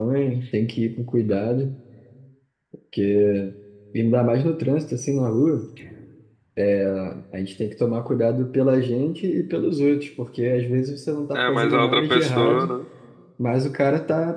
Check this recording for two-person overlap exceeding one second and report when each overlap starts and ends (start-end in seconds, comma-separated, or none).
11.3-12.7